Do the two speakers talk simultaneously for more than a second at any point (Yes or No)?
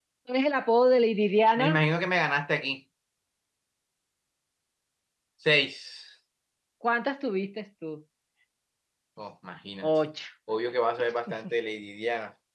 No